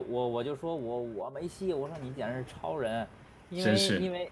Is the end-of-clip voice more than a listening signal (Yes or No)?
No